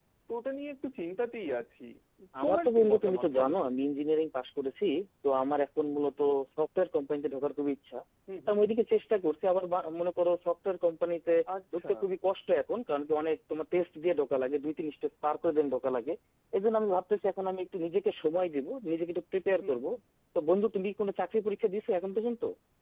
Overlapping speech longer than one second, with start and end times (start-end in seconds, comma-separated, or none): 2.4-3.7